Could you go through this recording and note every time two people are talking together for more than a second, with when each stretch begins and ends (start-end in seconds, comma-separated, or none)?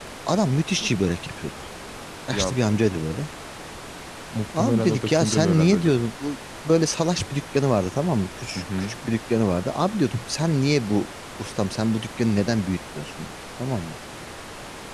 4.6-6.0